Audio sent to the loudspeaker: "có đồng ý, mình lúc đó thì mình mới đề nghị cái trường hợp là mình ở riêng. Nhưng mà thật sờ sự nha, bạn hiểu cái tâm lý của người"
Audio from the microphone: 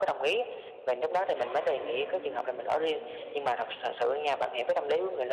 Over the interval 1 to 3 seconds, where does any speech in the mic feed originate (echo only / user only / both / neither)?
both